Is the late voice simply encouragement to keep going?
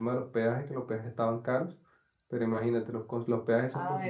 No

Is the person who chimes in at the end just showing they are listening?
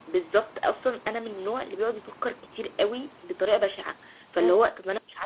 Yes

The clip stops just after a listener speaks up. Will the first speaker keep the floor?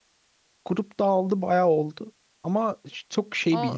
Yes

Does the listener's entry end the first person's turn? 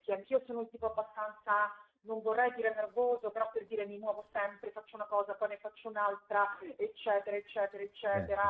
No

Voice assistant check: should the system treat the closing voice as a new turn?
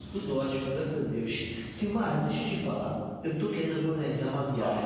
No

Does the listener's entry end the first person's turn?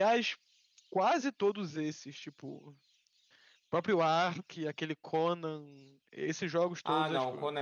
Yes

